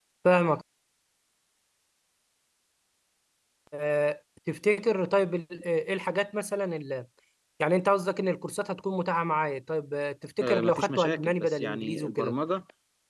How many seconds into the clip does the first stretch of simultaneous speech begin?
10.4 s

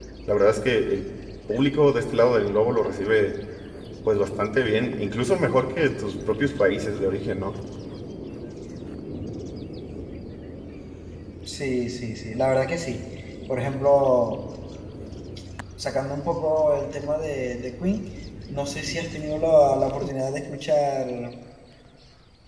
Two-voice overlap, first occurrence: none

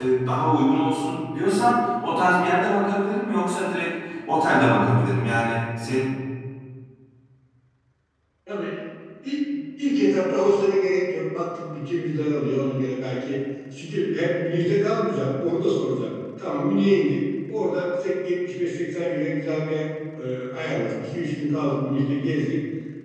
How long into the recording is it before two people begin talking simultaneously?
none

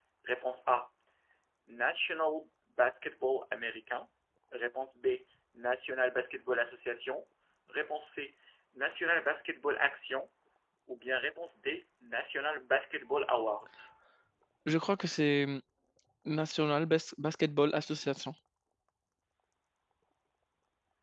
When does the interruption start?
none

